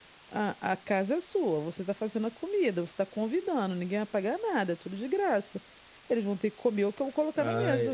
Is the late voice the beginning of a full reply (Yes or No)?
Yes